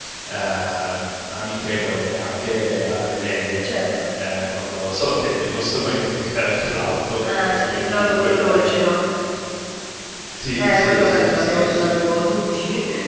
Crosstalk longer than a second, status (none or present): present